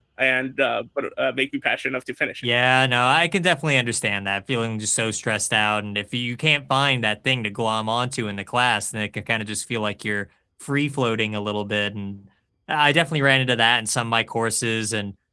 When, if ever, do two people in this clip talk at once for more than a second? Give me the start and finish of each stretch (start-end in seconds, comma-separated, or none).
none